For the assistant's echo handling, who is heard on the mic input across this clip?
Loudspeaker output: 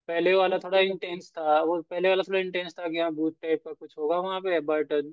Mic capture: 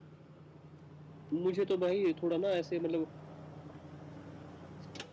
user only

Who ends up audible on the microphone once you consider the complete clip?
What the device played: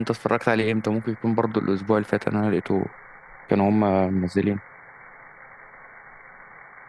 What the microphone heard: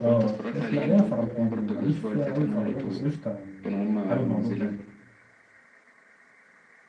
both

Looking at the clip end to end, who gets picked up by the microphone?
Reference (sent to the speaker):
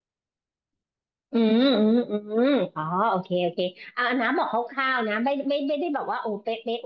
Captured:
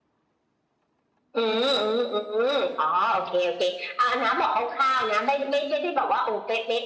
echo only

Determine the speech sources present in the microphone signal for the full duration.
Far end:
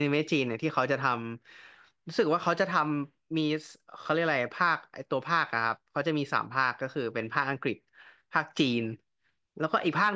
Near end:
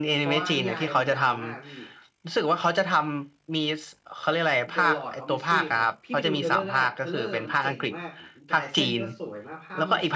both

